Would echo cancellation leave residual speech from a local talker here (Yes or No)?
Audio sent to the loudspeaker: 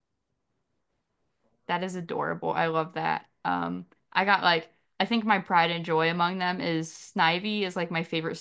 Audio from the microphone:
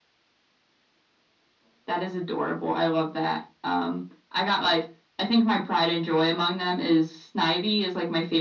No